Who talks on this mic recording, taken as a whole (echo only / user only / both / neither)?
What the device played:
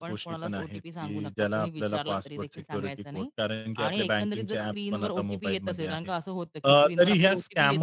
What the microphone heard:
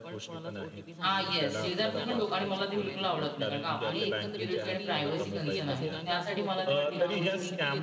both